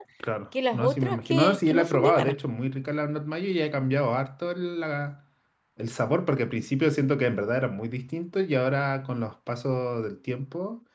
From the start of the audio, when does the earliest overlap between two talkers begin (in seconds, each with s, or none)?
0.7 s